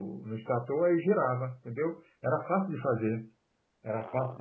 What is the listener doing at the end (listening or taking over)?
listening